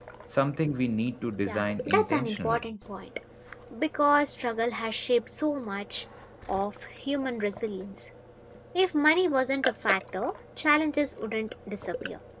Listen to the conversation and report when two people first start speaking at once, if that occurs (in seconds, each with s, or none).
1.5 s